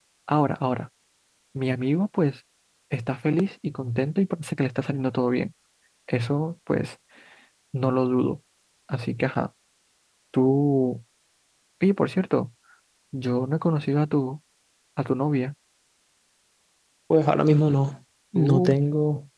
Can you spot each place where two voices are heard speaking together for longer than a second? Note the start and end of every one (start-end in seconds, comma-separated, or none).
none